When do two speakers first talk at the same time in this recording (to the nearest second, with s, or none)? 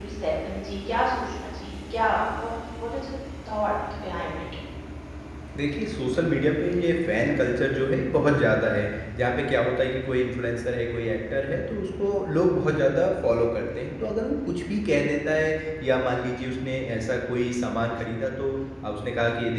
none